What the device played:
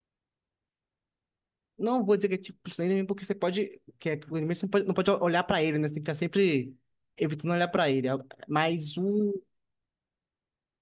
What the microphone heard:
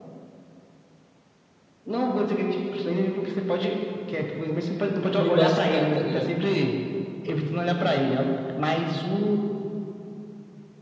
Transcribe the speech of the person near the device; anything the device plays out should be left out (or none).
me bazucar, tá ligado?